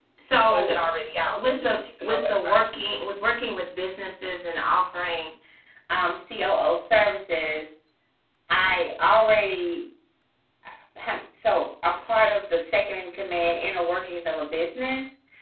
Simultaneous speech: Yes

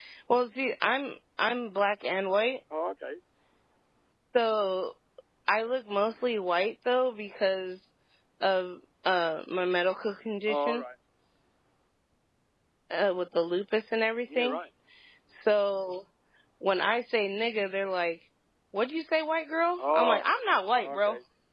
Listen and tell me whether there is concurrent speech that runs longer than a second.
No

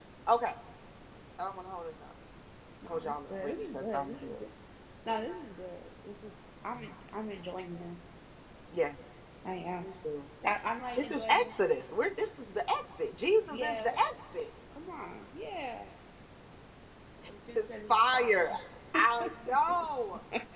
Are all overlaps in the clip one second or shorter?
No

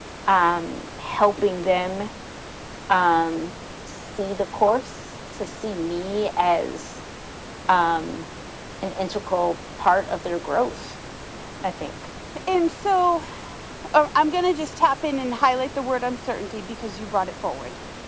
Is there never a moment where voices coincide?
Yes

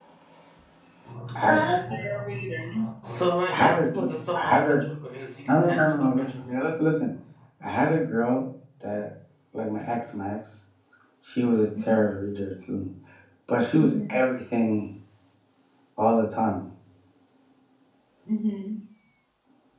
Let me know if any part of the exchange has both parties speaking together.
Yes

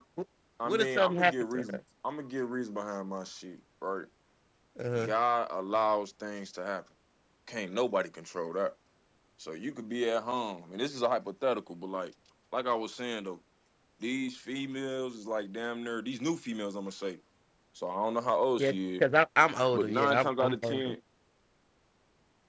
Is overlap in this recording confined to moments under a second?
No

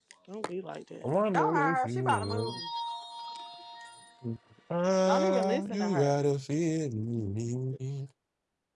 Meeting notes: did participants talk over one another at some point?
Yes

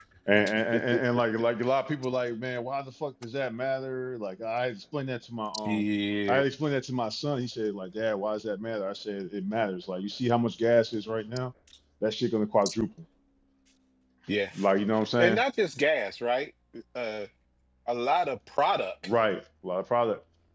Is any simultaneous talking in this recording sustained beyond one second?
No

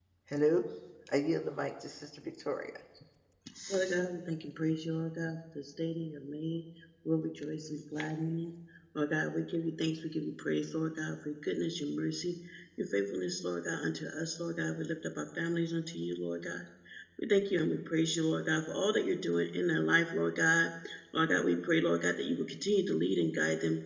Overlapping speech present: No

